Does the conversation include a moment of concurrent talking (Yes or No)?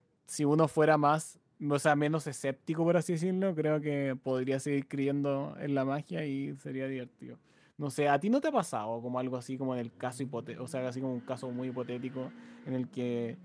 No